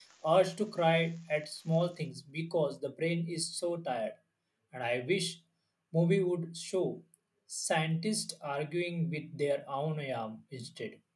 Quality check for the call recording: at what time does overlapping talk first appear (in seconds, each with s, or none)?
none